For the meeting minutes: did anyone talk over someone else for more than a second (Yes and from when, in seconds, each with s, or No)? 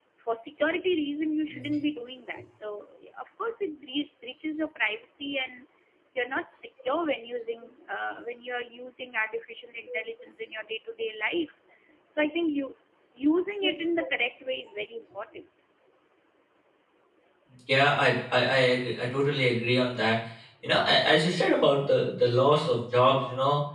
No